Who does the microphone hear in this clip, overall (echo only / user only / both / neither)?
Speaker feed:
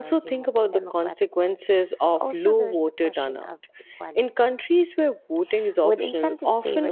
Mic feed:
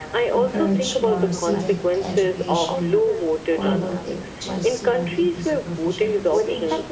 both